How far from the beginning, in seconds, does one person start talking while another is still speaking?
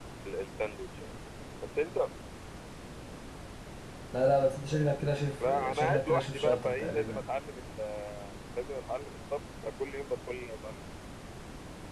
5.4 s

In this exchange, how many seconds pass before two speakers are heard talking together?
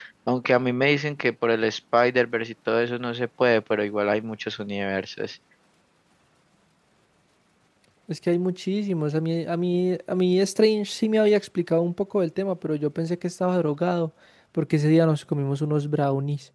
none

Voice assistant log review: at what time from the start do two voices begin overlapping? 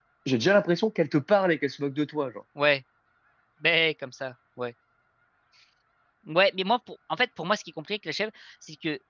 none

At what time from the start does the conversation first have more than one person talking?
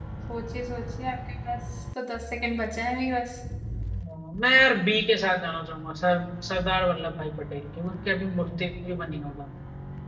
none

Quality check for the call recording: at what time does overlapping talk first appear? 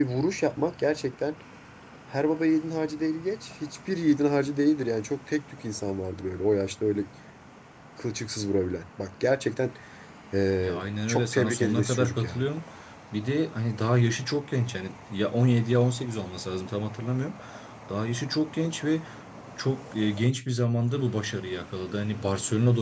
10.6 s

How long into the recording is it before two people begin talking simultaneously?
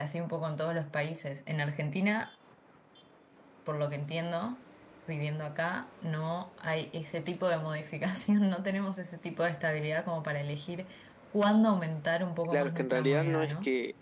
12.4 s

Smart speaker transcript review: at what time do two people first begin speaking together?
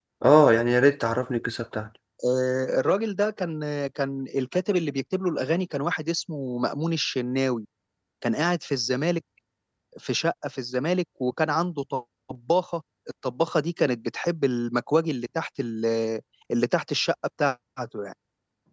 none

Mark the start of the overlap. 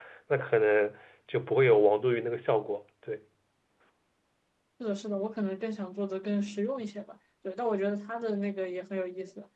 none

